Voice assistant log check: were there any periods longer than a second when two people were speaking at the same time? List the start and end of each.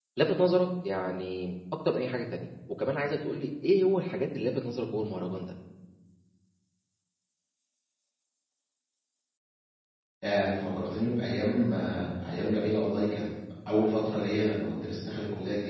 none

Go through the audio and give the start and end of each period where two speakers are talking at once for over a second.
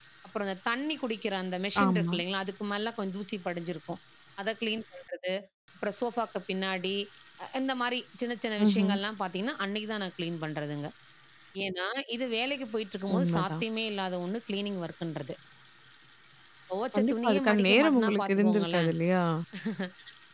16.9-18.9

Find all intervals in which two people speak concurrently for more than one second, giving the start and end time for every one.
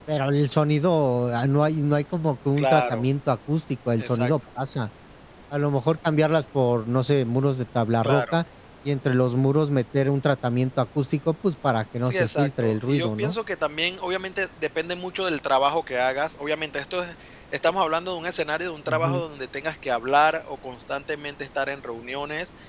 12.0-13.3

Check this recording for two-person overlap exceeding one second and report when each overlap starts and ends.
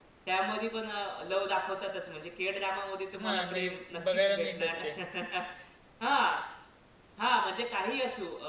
3.2-4.7

